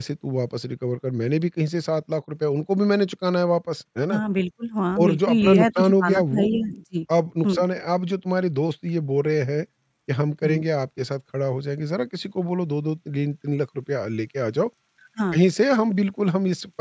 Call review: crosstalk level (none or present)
present